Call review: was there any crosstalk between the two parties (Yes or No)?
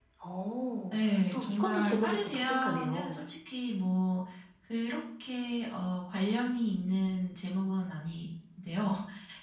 Yes